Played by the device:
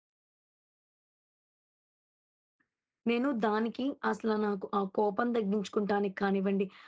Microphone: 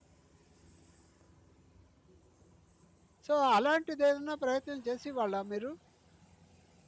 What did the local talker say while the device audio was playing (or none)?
సో, అలాంటిదేదైనా ప్రయత్నం చేసేవాళ్ళా మీరు?